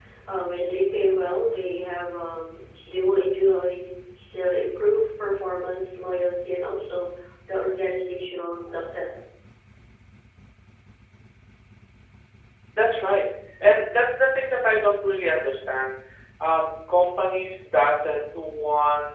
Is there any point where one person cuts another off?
No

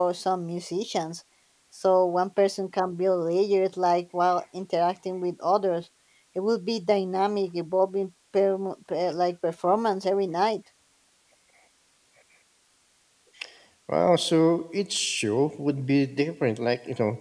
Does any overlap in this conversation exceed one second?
No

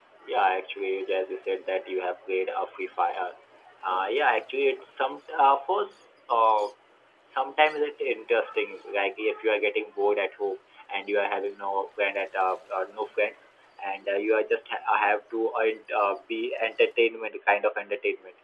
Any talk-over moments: No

